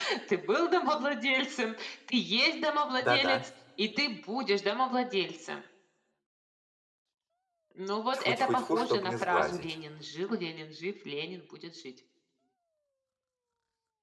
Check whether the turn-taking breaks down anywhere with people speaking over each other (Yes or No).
Yes